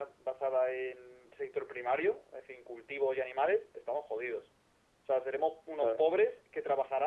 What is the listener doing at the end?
listening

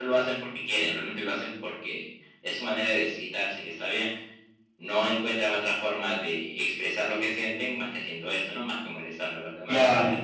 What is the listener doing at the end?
taking over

